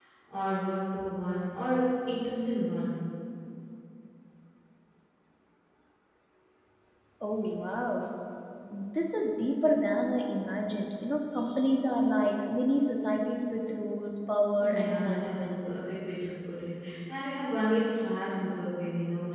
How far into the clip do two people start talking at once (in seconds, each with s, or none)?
14.6 s